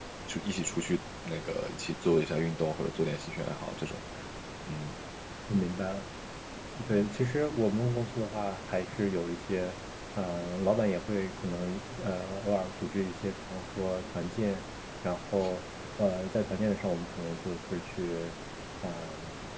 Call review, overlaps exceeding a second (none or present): none